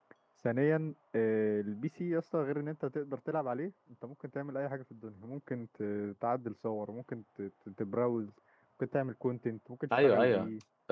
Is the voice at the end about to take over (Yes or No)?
Yes